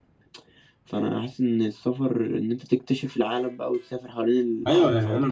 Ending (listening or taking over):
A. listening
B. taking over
B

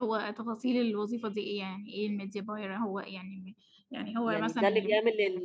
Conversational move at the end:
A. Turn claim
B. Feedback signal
A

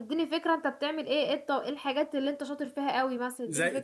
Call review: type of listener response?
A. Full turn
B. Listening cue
A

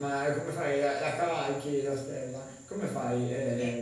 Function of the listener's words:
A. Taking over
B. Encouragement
A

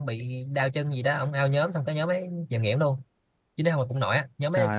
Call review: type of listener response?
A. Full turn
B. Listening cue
B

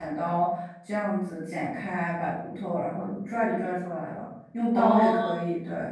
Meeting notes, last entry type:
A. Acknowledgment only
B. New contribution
A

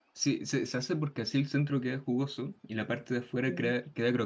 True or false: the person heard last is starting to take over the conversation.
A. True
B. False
B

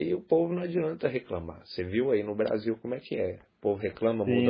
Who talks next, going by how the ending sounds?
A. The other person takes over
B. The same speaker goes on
A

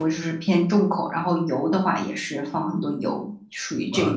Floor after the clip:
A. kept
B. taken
B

